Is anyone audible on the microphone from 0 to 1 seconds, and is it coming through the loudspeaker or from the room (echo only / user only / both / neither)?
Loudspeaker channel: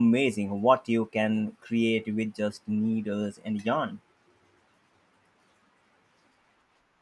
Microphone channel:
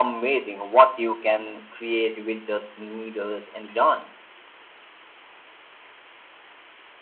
echo only